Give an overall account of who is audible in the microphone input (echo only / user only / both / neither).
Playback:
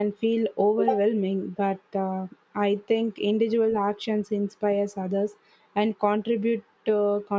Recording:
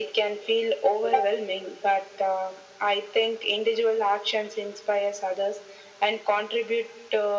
echo only